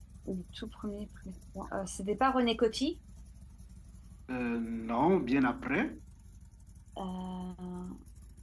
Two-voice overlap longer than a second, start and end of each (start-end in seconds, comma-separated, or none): none